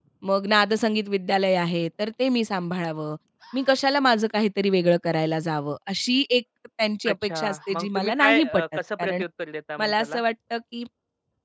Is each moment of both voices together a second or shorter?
No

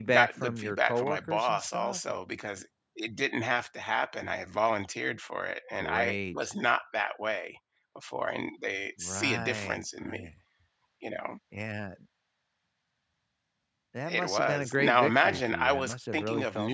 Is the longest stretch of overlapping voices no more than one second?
No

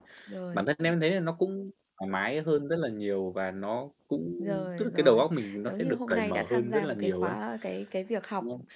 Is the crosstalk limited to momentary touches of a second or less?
No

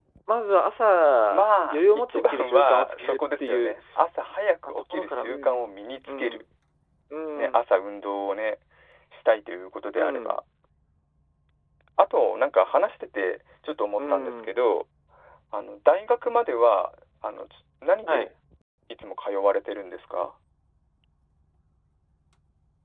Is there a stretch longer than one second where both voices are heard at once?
Yes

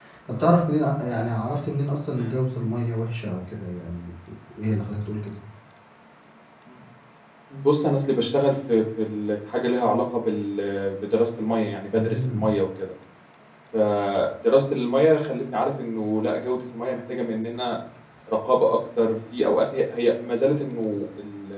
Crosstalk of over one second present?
No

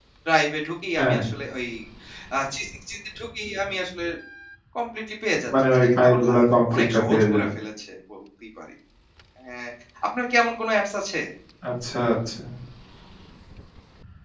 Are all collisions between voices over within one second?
No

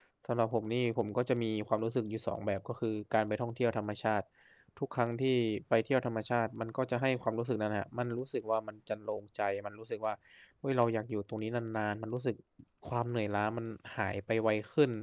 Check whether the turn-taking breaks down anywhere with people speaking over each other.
No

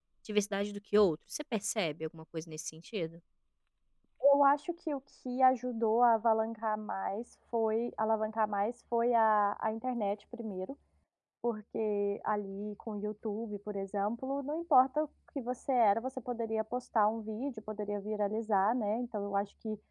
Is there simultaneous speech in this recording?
No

